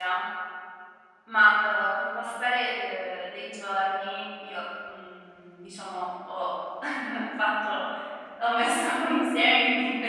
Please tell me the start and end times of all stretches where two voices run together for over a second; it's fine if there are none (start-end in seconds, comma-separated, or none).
none